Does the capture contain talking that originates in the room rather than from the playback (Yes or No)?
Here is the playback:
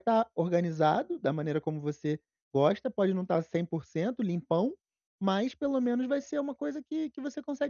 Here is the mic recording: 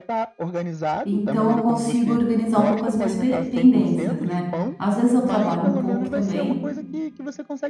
Yes